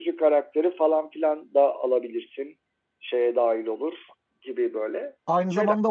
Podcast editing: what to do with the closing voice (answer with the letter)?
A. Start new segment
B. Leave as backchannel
A